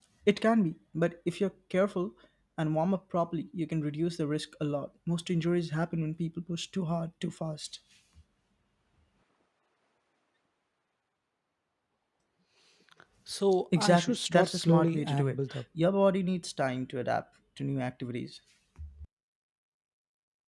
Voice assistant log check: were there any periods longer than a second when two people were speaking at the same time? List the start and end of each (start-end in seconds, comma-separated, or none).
13.8-15.6